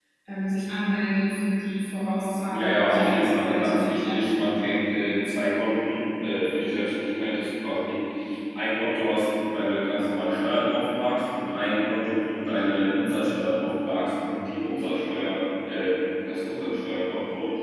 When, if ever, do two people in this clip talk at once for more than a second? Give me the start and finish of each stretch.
2.5-4.2

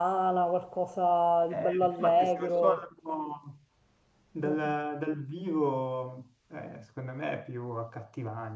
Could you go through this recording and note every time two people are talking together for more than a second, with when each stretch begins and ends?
1.5-2.8

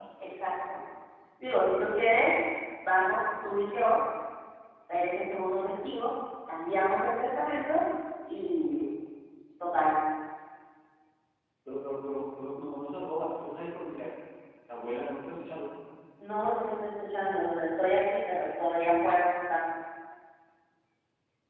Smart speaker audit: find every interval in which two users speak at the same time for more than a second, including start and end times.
none

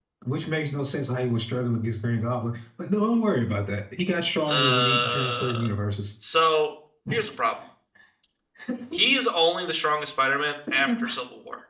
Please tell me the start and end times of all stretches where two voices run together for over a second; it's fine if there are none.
4.5-5.7

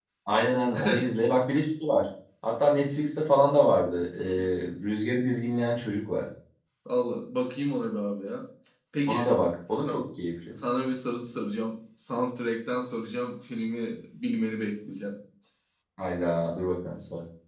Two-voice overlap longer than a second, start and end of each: none

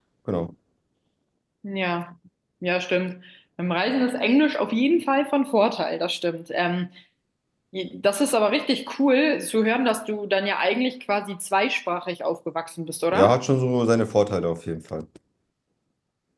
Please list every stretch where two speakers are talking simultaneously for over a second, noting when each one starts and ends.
none

